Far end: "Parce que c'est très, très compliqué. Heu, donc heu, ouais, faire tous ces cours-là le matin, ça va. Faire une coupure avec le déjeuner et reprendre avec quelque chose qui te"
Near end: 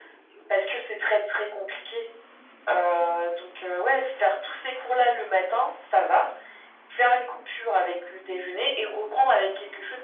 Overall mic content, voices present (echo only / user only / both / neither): echo only